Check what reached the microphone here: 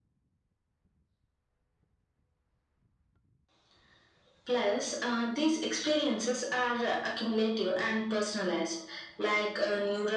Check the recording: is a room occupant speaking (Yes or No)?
No